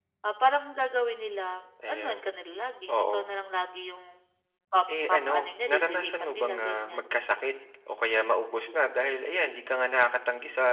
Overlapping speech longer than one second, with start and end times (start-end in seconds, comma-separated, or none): 5.1-7.0